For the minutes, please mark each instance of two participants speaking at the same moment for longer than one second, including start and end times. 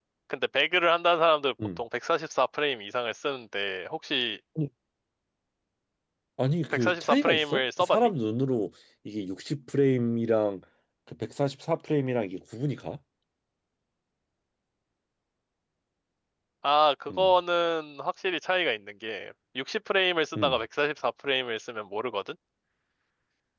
6.7-8.1

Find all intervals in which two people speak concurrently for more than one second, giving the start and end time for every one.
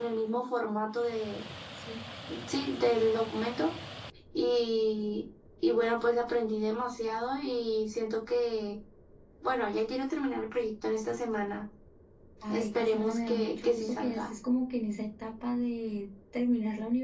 12.5-14.2

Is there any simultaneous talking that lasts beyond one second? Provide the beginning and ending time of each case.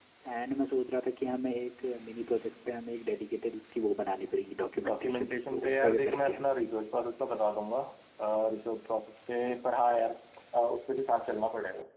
4.8-6.4

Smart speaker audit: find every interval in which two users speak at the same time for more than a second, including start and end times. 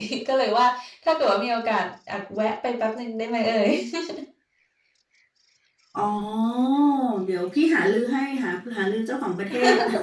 none

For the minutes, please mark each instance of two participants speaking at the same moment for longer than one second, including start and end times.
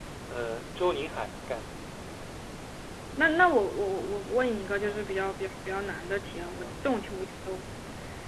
none

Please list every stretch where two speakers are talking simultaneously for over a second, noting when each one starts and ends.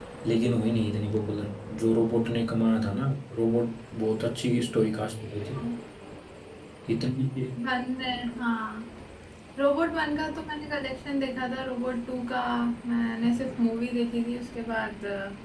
none

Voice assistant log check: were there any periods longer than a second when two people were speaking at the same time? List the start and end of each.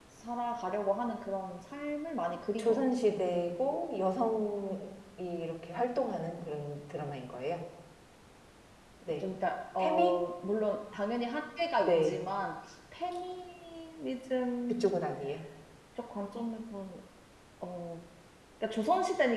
none

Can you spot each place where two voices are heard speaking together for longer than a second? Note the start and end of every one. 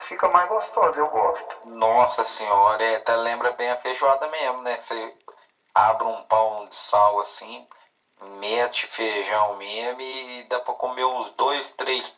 none

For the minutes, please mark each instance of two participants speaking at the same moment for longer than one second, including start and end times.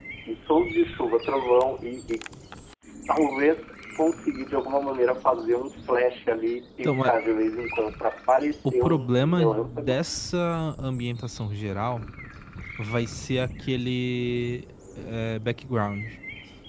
8.6-10.0

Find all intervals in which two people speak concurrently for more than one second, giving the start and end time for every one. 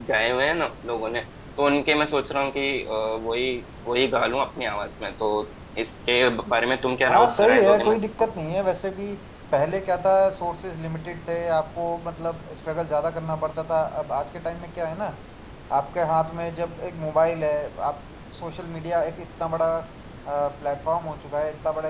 7.1-8.3

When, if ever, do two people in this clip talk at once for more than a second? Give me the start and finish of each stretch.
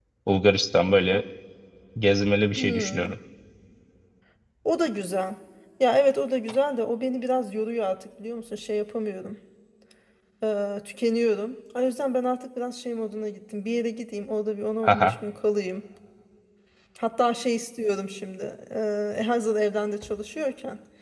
none

